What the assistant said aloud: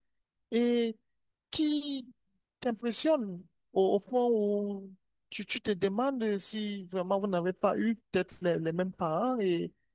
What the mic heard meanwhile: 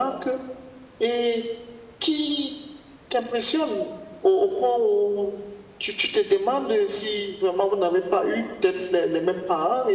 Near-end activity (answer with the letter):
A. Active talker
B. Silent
B